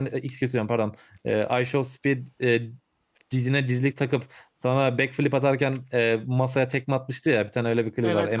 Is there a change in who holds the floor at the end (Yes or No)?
Yes